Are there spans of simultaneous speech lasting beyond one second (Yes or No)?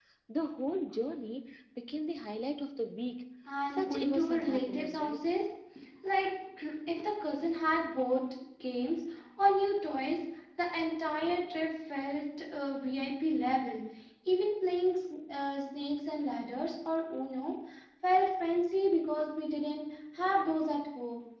Yes